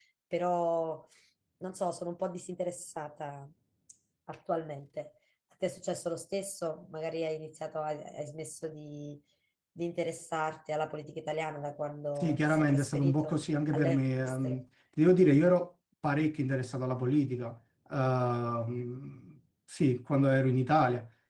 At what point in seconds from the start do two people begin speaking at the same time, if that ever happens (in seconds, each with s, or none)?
12.2 s